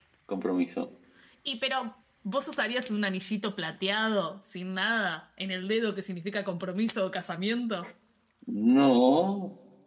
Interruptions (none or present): none